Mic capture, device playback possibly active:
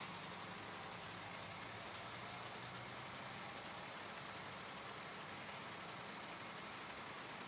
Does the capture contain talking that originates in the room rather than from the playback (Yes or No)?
No